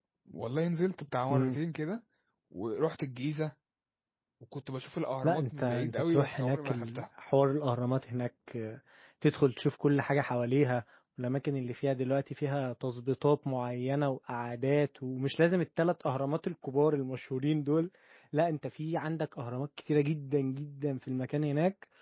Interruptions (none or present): present